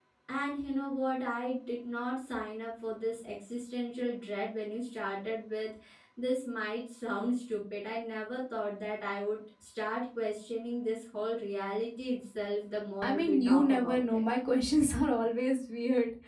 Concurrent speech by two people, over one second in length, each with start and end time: 13.0-14.2

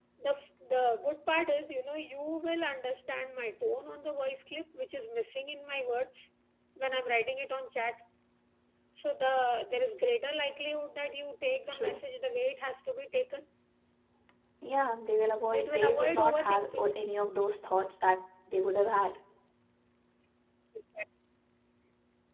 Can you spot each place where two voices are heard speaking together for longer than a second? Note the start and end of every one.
15.5-16.9

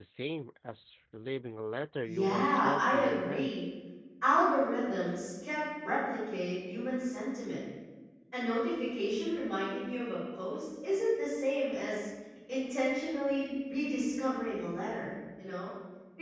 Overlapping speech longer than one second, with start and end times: 2.0-3.6

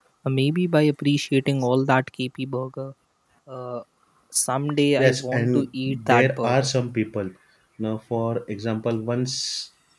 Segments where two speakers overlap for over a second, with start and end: 5.0-6.7

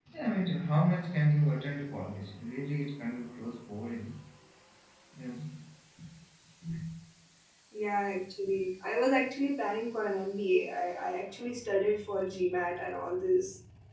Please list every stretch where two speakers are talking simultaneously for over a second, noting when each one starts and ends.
none

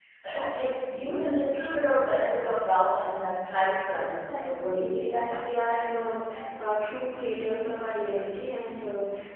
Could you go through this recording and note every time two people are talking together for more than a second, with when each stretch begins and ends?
4.0-5.6

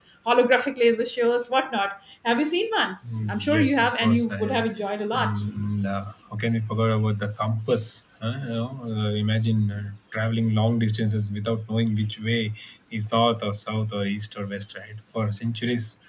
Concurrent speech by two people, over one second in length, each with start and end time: 3.3-4.6

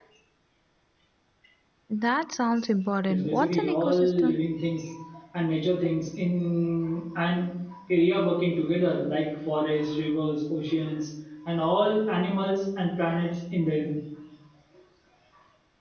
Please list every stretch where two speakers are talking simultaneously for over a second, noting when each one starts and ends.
3.1-4.4

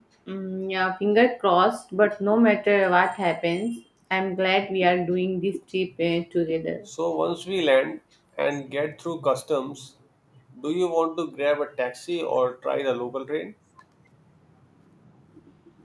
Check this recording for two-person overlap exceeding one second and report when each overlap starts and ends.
none

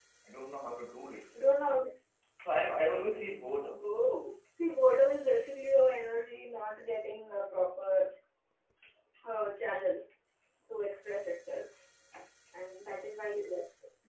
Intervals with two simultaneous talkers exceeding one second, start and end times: none

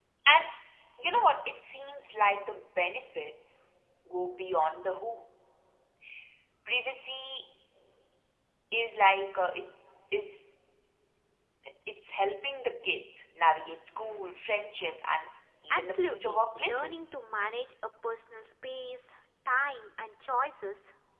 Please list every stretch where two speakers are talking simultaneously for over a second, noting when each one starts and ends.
15.7-17.1

